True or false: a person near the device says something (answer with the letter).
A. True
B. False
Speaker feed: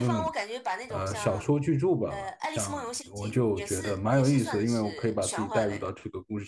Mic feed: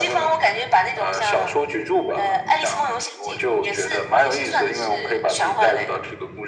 B